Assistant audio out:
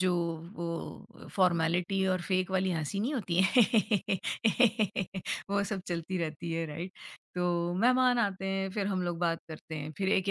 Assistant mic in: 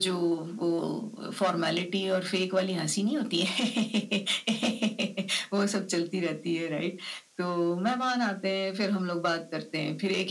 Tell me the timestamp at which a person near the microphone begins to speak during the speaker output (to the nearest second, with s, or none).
none